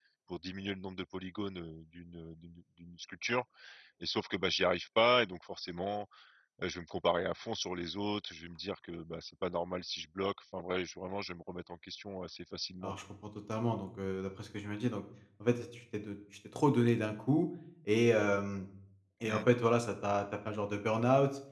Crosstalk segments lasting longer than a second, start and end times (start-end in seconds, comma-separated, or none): none